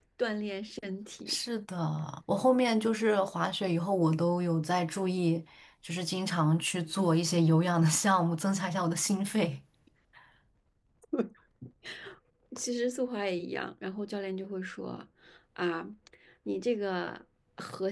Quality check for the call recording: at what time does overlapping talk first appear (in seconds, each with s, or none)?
none